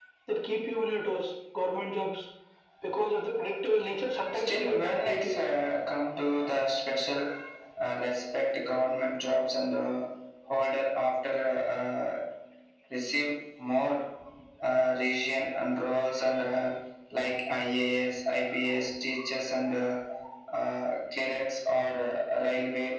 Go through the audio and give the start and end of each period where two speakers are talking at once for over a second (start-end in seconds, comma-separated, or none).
4.3-5.6